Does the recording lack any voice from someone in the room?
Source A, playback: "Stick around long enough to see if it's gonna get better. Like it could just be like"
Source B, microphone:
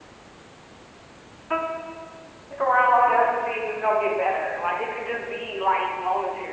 Yes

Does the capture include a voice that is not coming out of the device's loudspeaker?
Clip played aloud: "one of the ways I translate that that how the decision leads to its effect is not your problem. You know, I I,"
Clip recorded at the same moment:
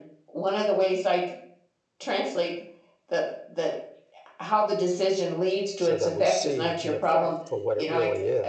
Yes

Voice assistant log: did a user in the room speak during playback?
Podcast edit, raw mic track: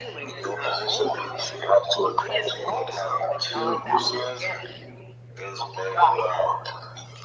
No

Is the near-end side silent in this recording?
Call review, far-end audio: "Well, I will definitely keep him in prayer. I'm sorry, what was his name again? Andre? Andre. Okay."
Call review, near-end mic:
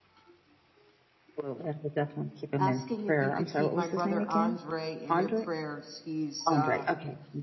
No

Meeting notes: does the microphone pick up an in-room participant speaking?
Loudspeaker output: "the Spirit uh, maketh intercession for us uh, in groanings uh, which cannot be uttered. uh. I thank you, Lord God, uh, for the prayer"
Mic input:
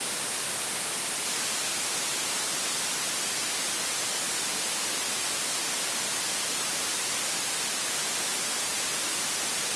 No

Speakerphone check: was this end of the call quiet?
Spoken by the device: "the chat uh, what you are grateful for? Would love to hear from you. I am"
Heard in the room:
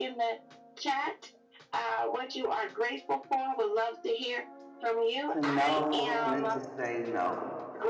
No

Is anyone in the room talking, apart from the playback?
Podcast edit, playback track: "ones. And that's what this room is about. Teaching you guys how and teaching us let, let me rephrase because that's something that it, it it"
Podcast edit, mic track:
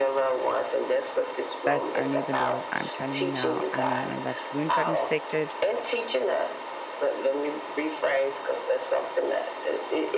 Yes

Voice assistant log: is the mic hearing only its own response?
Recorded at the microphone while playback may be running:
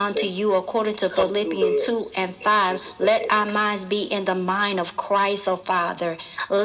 Yes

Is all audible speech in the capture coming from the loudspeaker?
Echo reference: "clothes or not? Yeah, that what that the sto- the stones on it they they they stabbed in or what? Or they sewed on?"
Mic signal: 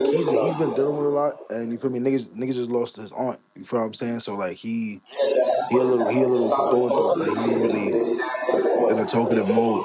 No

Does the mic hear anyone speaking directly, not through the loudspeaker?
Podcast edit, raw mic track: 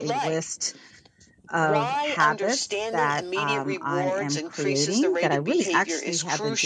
Yes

